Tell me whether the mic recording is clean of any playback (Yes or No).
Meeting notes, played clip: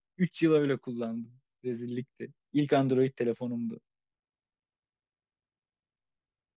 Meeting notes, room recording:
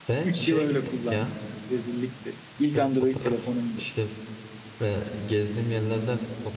No